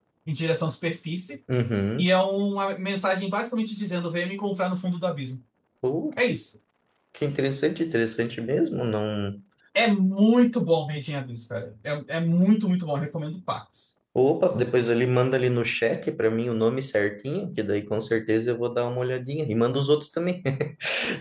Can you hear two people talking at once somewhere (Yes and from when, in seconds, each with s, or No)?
No